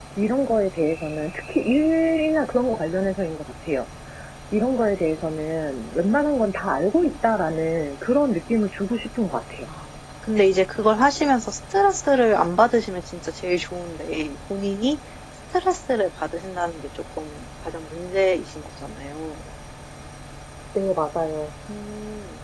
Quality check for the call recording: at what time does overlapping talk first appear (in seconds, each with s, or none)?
none